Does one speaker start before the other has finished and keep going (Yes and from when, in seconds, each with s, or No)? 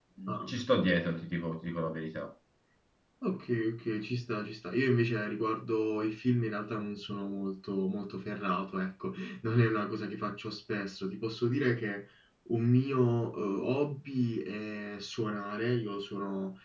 No